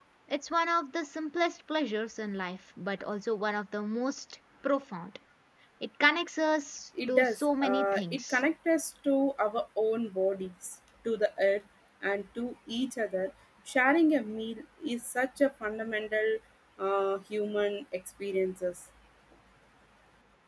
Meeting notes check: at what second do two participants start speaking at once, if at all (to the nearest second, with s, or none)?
7 s